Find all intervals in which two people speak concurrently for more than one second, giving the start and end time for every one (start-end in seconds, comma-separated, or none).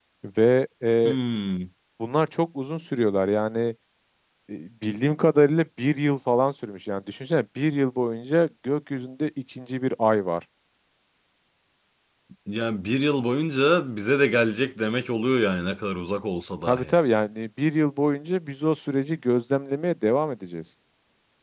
none